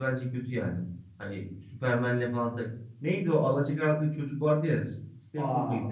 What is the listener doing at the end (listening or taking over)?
taking over